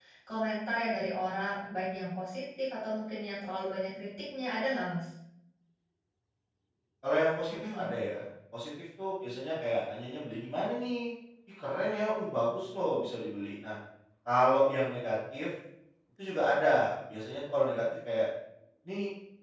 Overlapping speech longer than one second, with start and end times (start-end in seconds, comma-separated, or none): none